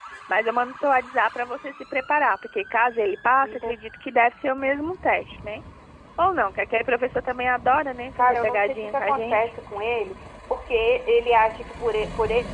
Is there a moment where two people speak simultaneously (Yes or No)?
Yes